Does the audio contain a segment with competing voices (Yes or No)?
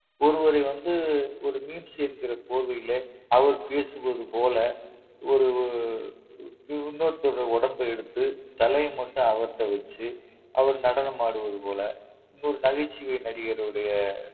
No